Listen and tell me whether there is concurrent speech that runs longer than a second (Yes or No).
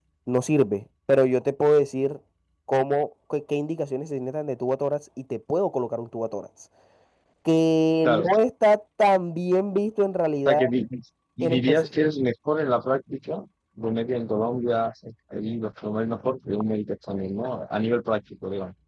No